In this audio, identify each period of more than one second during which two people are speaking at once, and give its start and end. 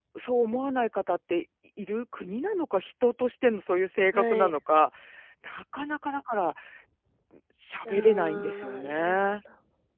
7.9-9.2

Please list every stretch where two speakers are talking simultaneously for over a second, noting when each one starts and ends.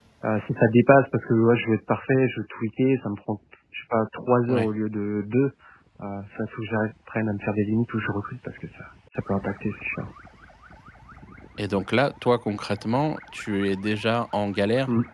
none

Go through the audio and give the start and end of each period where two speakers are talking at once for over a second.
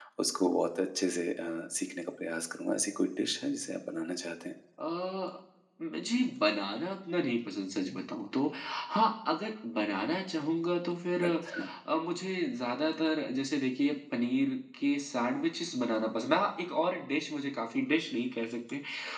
none

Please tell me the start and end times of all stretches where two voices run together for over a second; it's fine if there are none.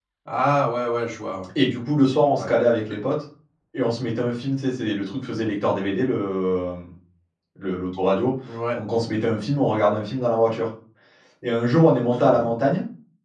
none

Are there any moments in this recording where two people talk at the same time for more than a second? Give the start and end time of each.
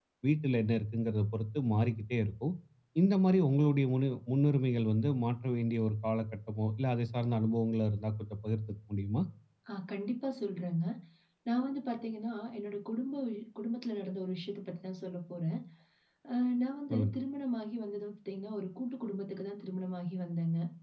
none

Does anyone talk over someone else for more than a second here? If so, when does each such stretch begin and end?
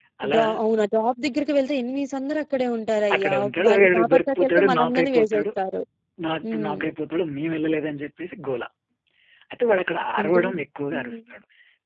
3.1-5.4

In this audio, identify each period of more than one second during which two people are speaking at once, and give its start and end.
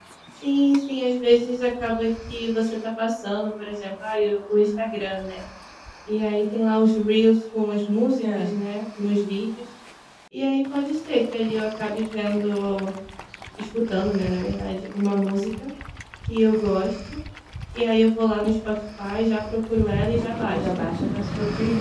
none

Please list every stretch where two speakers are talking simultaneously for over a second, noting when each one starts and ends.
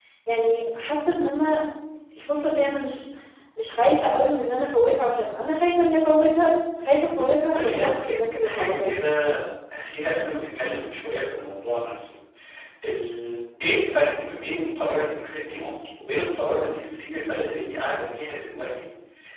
7.5-9.0

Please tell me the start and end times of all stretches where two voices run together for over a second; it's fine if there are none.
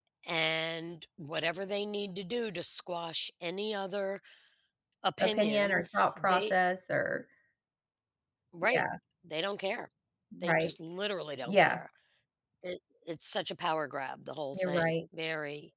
5.2-6.5

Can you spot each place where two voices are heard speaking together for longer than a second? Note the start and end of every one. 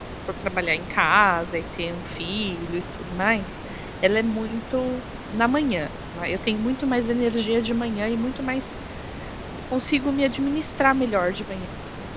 none

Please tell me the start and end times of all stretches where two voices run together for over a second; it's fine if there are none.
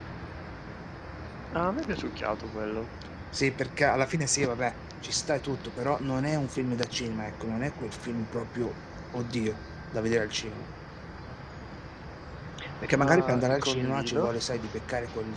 13.0-14.3

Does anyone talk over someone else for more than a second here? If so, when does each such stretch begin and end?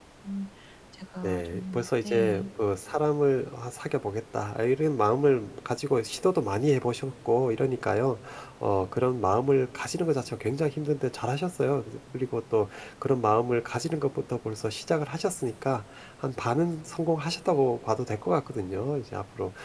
1.2-2.5

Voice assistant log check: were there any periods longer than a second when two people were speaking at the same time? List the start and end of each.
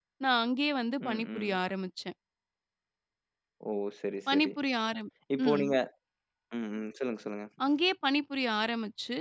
none

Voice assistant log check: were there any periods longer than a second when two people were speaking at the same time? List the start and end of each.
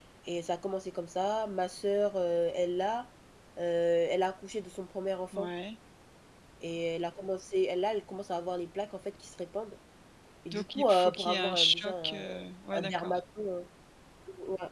10.5-12.2

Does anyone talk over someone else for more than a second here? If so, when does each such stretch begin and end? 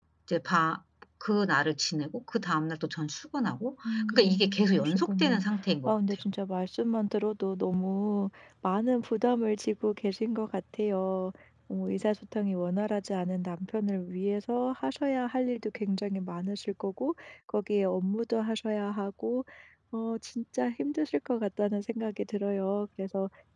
3.9-5.4

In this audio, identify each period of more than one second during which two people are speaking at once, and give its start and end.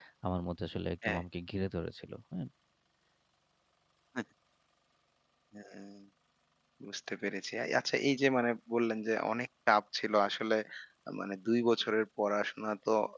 none

